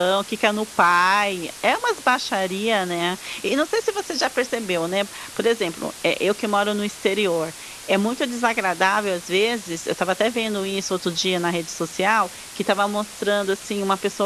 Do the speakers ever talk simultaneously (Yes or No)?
No